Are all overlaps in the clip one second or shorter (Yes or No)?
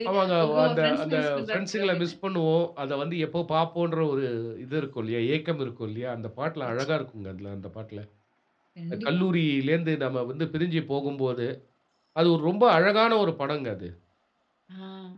No